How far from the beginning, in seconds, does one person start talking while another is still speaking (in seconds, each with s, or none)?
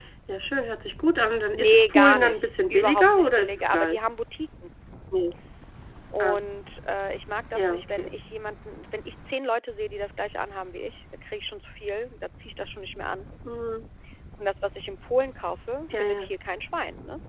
1.5 s